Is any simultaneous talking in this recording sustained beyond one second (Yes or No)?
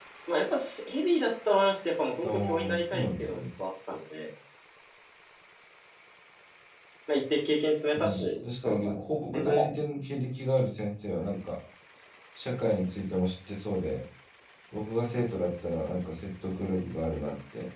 Yes